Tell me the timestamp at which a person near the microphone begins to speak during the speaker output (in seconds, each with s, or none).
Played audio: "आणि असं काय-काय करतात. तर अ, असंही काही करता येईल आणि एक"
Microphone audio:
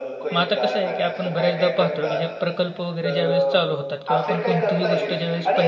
0.3 s